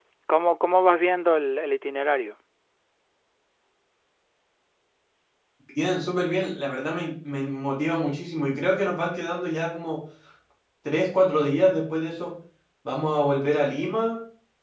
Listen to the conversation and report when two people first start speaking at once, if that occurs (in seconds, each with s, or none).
none